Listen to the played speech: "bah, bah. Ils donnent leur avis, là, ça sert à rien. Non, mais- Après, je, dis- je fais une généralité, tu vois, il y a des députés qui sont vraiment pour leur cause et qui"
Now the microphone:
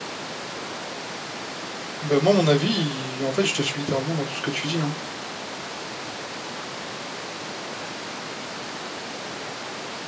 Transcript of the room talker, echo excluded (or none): Ben moi, mon avis, il- en fait, je te suis littéralement dans tout ce que tu dis. Hein.